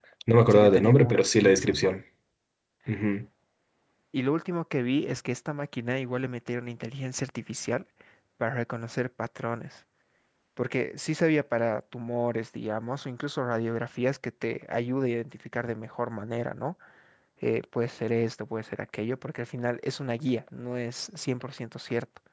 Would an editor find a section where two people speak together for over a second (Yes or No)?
Yes